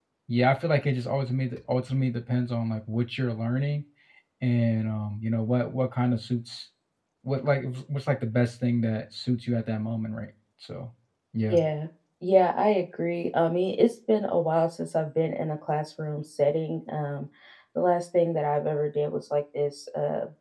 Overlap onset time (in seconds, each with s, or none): none